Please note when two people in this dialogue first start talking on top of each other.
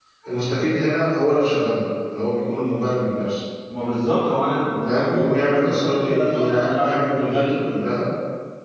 4.9 s

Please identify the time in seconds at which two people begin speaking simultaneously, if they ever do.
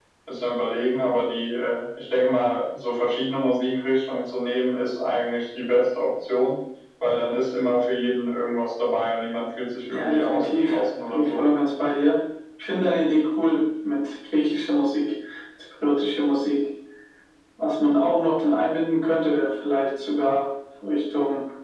9.9 s

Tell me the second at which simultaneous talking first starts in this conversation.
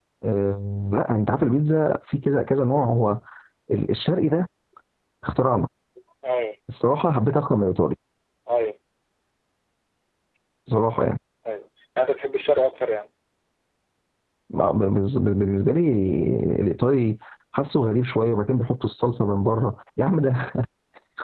none

